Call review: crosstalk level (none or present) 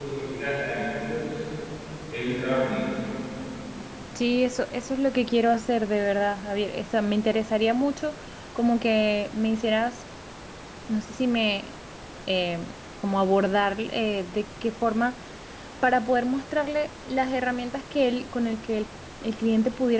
none